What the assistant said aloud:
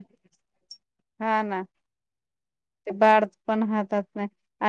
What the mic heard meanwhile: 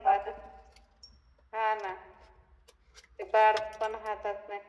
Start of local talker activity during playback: none

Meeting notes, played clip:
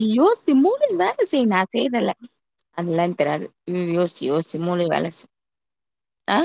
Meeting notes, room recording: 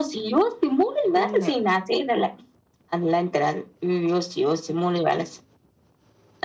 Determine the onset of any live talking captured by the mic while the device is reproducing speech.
1.1 s

